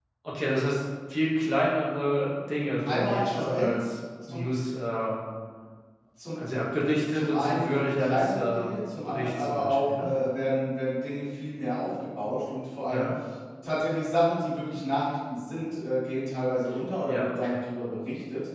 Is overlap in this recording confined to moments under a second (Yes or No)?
No